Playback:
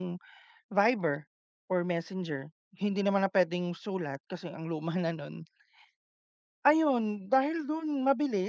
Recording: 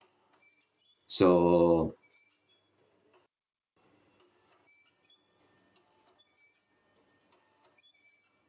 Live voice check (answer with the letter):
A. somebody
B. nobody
A